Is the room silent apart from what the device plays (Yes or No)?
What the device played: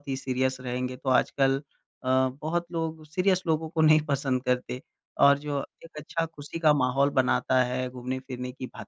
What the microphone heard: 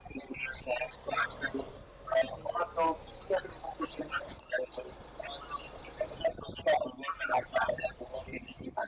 Yes